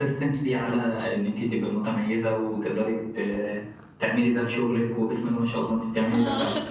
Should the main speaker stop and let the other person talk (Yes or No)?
Yes